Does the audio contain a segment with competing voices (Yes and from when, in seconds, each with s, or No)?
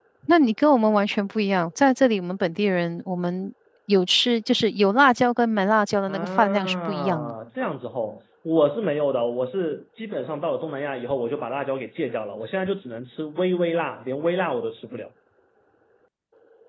Yes, from 6.1 s